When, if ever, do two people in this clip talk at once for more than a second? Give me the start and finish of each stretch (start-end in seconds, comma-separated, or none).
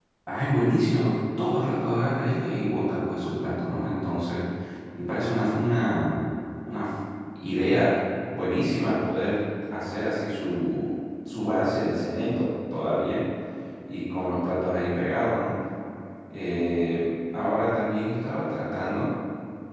none